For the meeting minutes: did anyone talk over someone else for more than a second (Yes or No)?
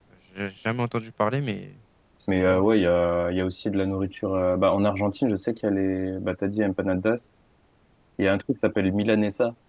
No